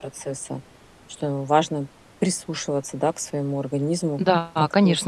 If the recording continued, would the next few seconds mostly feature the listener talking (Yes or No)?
Yes